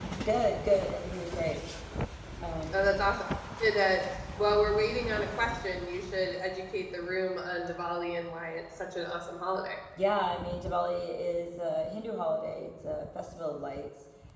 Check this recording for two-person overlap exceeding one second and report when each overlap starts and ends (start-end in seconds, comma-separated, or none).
none